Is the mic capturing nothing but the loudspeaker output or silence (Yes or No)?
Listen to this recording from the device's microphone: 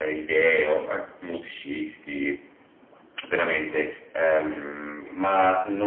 Yes